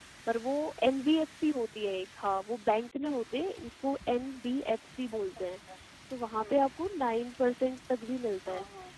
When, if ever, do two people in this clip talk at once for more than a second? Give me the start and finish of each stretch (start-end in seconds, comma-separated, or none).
none